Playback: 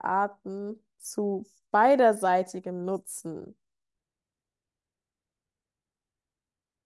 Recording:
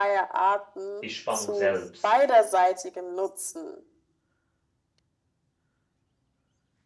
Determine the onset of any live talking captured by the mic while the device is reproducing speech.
1.0 s

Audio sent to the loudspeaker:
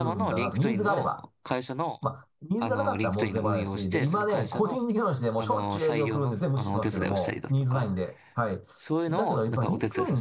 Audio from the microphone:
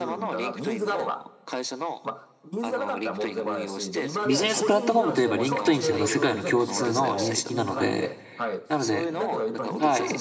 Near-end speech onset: 4.2 s

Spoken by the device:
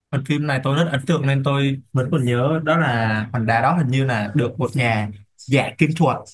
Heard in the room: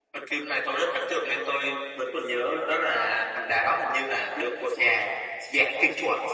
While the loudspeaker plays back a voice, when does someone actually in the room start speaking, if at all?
none

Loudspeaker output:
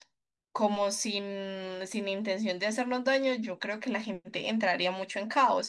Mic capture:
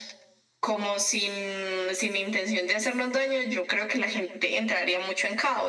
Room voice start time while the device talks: none

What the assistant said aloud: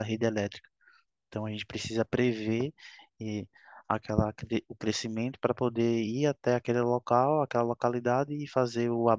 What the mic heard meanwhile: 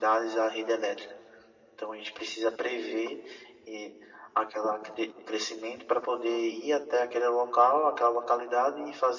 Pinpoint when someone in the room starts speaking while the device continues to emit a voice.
none

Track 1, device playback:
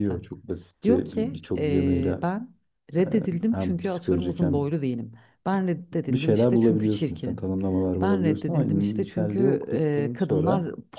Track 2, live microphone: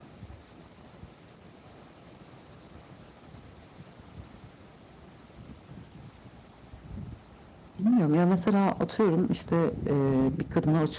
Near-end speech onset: 7.8 s

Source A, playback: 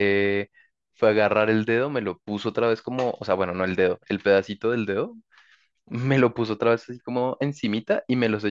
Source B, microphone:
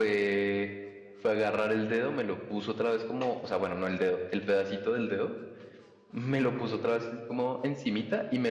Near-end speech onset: none

